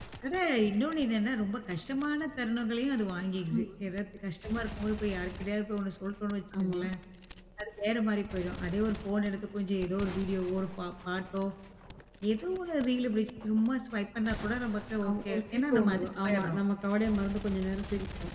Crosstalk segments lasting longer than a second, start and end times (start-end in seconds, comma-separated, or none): 15.1-16.6